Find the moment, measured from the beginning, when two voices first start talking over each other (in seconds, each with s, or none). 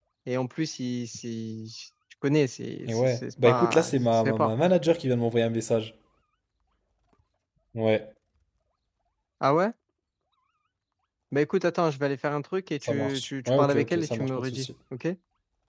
2.9 s